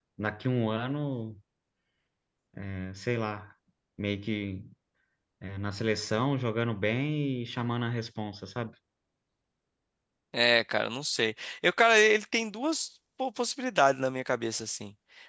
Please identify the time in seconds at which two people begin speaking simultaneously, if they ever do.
none

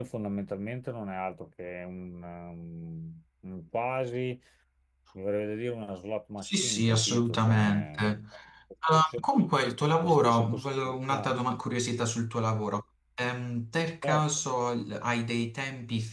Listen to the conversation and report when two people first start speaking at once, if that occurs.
6.4 s

